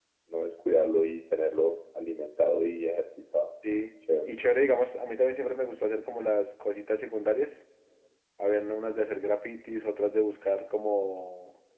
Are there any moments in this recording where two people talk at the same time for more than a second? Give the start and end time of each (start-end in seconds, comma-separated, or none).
none